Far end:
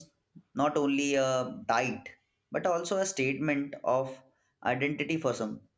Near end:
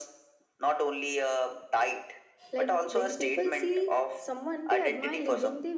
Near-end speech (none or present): present